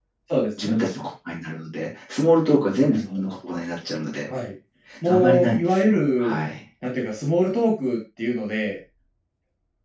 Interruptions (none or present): present